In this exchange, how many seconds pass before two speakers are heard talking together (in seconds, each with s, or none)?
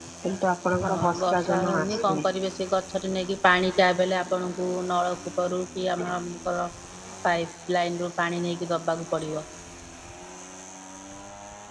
0.9 s